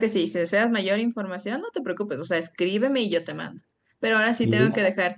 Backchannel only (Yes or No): Yes